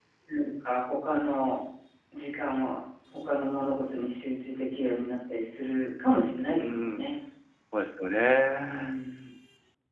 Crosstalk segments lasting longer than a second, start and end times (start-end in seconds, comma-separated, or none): none